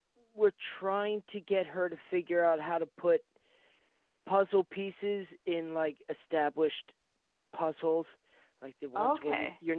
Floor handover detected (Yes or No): No